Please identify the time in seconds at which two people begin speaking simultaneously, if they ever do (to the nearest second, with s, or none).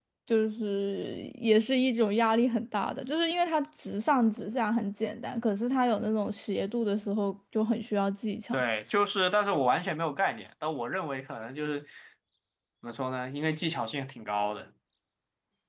none